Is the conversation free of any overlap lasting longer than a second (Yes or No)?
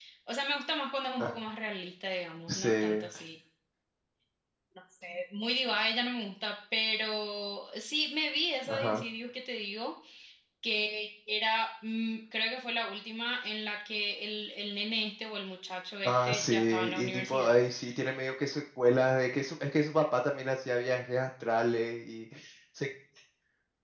No